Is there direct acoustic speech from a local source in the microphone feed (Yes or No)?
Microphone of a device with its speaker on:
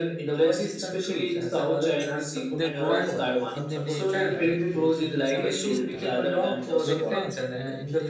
Yes